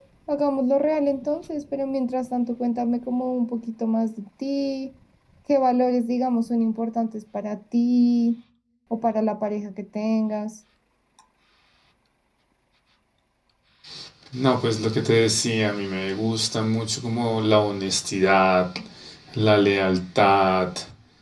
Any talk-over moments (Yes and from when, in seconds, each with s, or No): No